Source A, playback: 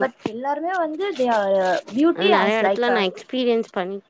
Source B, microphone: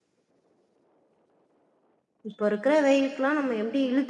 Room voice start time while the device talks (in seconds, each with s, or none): 2.3 s